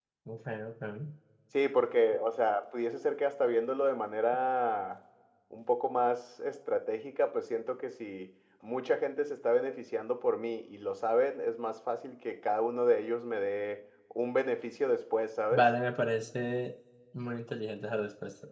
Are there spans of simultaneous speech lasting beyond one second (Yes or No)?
No